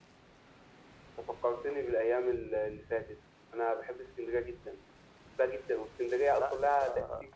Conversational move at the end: listening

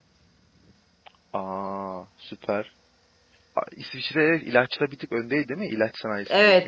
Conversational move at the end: taking over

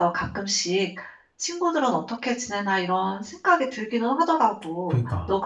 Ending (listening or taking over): listening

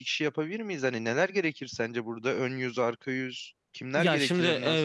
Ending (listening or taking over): taking over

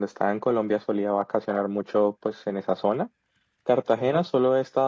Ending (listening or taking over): listening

